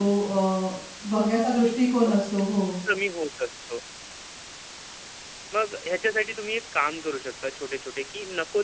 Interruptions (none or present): none